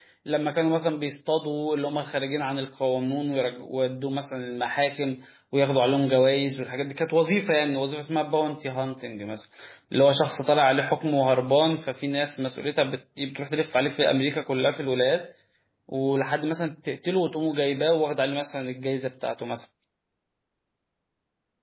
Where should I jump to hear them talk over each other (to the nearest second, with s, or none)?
none